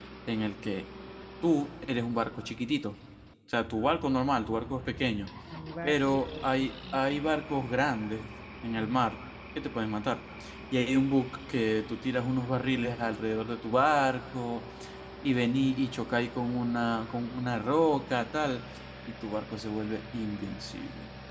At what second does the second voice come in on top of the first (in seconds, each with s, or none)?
5.8 s